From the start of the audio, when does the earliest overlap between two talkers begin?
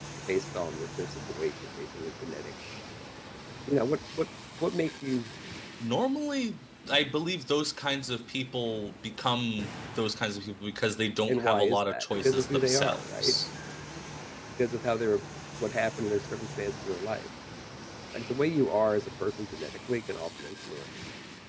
11.3 s

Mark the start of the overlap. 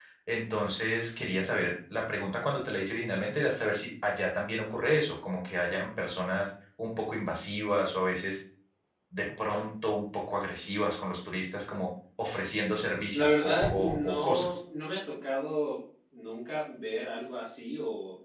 13.1 s

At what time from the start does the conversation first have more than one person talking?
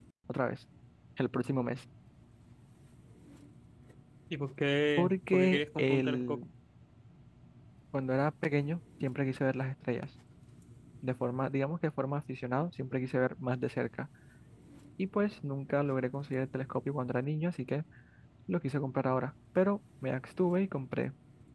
5.0 s

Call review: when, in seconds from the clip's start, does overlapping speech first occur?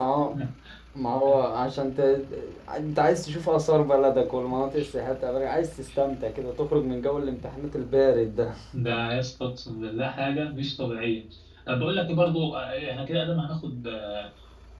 none

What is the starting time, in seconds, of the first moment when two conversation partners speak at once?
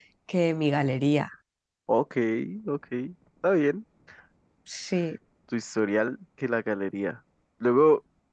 none

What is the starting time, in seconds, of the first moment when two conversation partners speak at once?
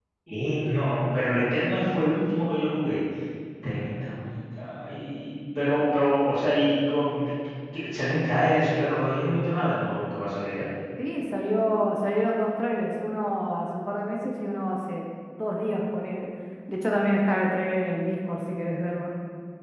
none

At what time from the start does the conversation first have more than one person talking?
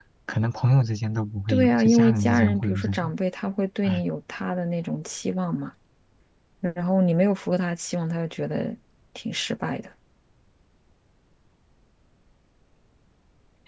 1.5 s

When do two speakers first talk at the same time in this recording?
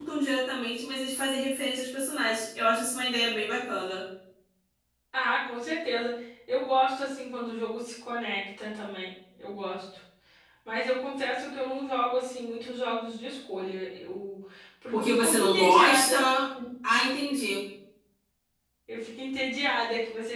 14.9 s

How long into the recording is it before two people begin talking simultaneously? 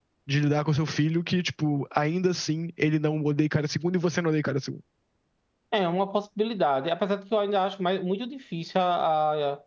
none

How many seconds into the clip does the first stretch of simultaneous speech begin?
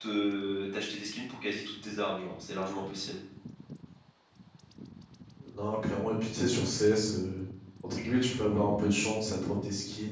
none

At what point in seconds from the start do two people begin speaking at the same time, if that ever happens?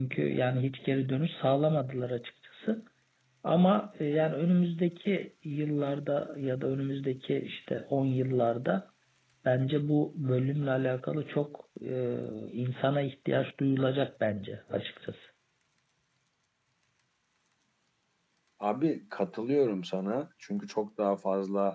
none

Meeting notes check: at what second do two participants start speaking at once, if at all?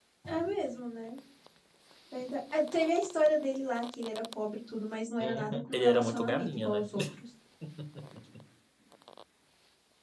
5.2 s

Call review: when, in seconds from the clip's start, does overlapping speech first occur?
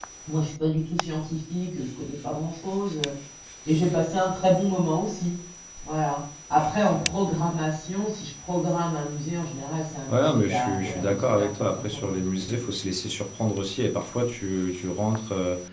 10.1 s

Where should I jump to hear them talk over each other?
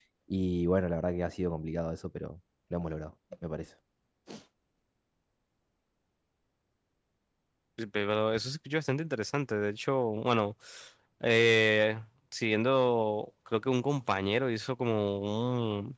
none

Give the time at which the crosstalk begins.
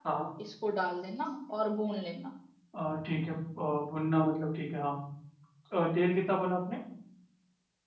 none

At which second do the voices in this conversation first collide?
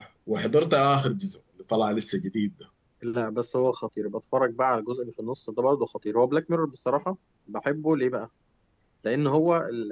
none

